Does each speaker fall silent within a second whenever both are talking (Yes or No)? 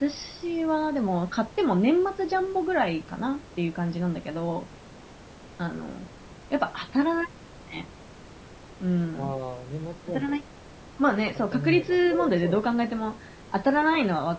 No